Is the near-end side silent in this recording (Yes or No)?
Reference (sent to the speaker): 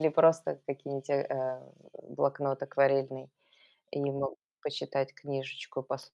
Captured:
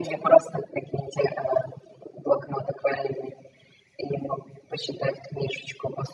Yes